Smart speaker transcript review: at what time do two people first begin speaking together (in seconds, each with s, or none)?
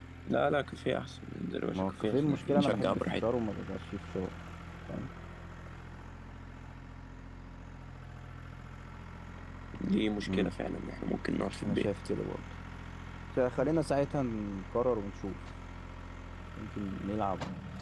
1.7 s